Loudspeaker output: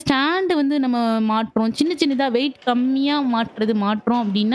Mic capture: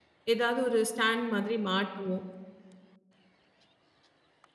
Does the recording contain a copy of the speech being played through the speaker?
No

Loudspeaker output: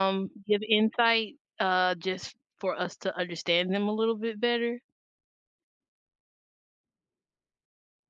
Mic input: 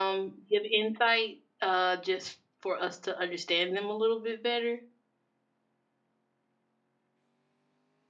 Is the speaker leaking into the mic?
Yes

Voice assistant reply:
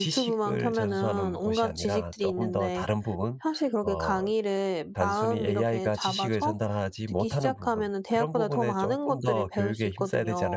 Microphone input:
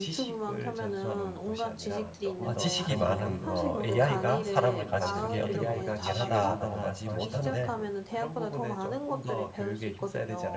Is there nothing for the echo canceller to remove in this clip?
No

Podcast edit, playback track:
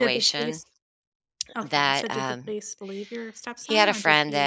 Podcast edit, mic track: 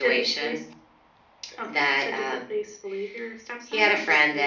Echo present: Yes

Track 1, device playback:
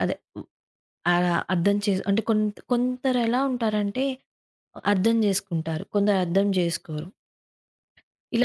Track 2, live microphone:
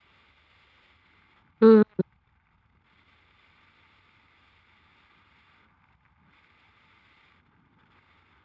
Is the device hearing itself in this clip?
No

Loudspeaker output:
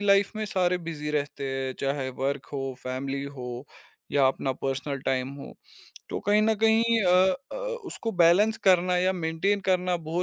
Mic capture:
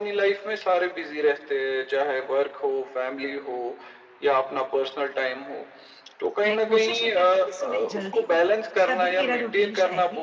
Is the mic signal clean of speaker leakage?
No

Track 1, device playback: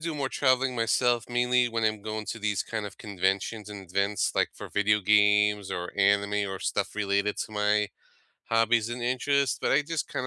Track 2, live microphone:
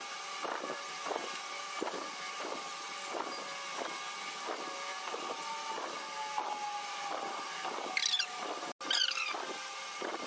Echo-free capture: Yes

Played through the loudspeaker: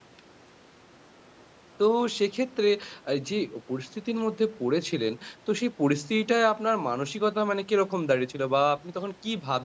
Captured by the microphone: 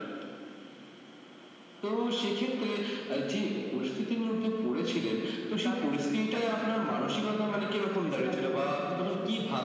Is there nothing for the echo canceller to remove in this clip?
No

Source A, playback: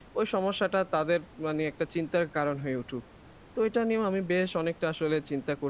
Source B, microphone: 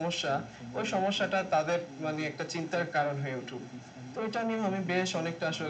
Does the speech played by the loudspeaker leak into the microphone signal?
Yes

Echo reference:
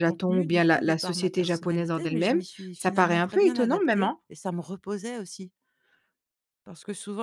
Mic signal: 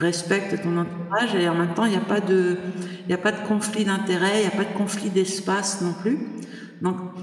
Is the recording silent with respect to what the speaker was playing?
Yes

